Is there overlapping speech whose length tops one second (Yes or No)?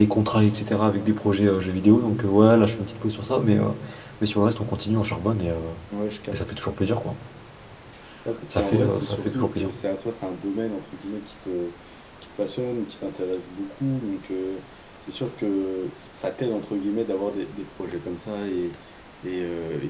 Yes